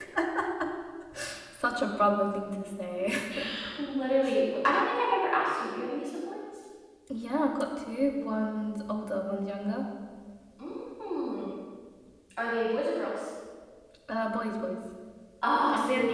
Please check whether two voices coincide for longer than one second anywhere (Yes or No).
No